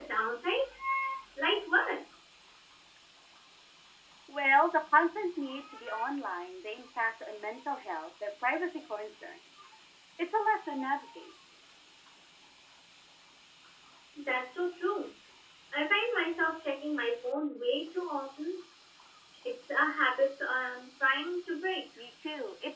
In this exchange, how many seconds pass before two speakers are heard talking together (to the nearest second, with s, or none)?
none